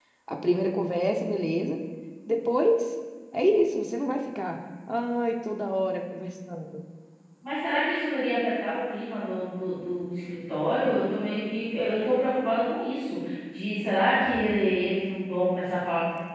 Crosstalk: none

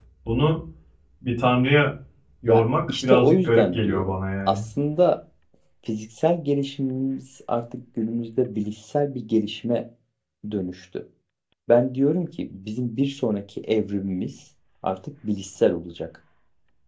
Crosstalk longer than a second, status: present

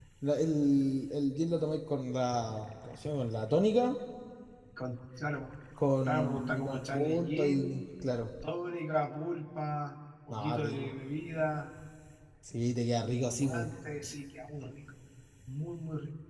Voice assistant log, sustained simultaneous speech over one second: present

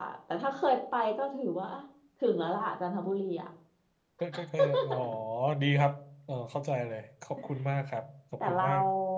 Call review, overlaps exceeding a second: none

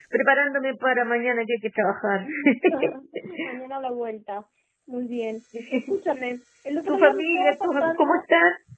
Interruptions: present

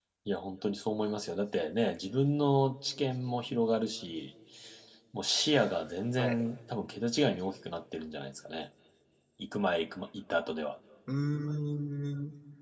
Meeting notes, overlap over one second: none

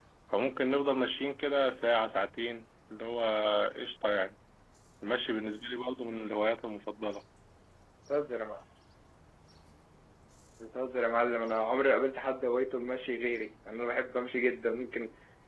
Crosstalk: none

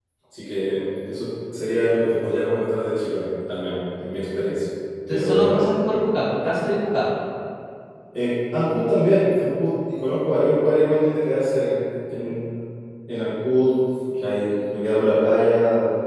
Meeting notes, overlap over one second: none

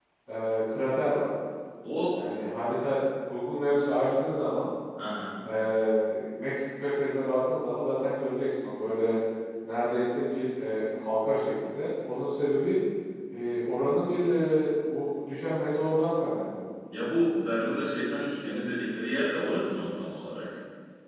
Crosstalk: none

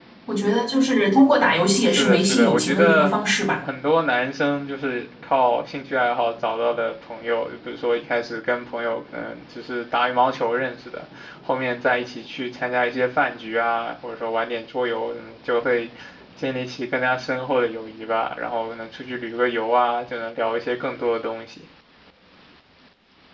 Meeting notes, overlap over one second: present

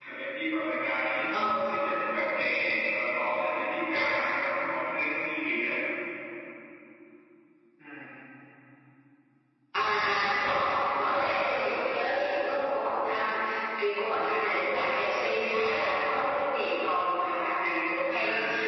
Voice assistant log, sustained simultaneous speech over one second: none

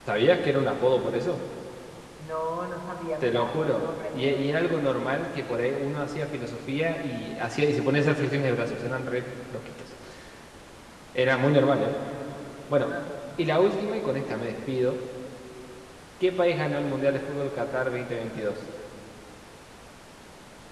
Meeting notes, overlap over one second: present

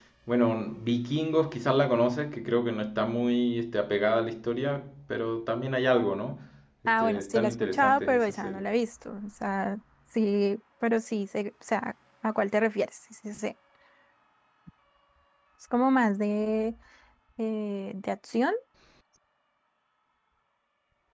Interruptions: present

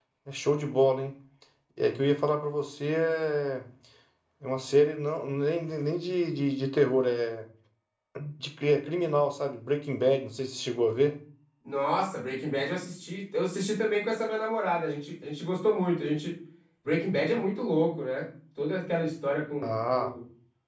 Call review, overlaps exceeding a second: none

